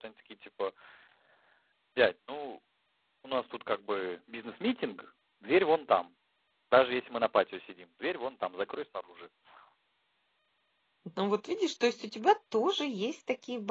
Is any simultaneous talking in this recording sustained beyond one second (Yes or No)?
No